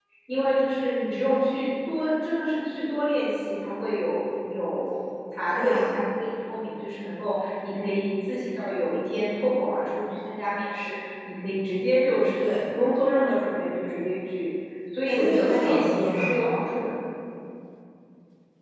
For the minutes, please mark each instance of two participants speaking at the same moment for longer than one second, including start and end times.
15.1-16.3

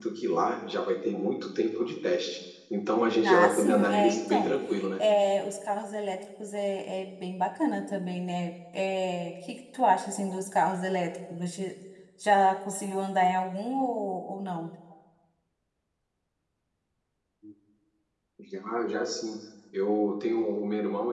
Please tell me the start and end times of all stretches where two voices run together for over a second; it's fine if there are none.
3.2-4.6

